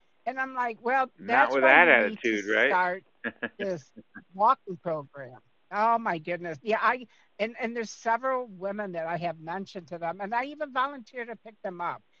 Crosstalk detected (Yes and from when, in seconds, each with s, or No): Yes, from 1.2 s